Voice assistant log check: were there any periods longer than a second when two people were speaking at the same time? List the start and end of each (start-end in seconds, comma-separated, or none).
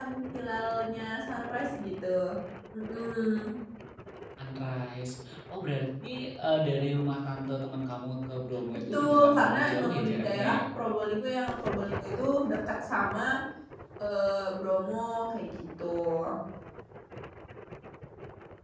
8.9-10.6